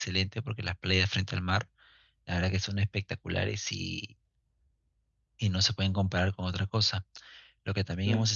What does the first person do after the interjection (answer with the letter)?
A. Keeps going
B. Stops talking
A